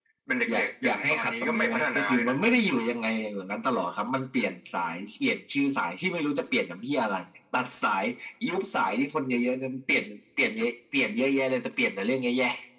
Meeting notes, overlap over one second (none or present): present